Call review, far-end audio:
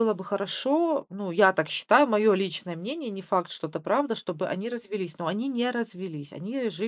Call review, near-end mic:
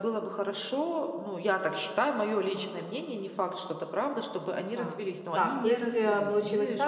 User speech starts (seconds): 4.8 s

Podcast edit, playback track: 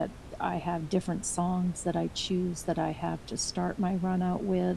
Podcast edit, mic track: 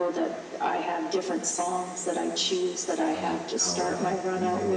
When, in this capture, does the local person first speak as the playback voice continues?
3.1 s

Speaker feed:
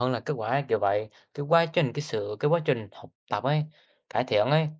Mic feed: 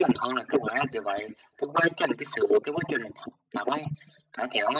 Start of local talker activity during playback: none

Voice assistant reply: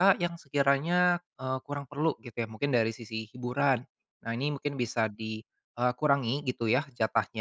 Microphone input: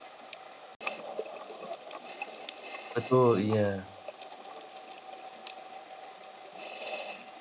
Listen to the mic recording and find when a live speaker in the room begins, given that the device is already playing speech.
3.0 s

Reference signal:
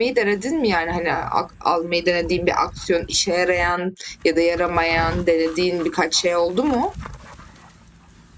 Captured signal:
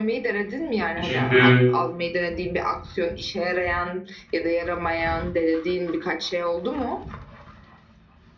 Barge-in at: 1.0 s

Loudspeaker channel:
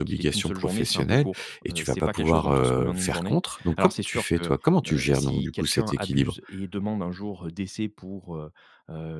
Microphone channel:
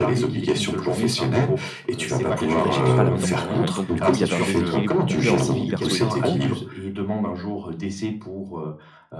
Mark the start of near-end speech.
2.6 s

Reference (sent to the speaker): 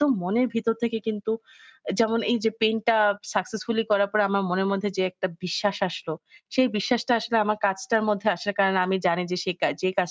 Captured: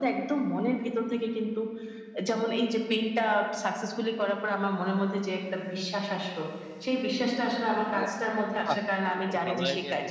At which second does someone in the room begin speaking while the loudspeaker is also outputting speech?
7.9 s

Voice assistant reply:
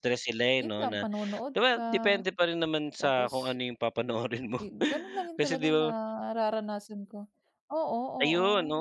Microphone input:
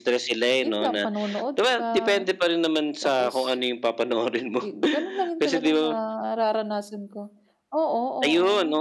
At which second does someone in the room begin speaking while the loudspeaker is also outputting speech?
none

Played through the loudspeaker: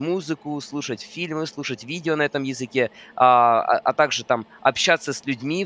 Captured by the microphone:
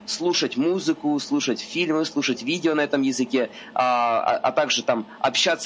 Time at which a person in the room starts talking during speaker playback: none

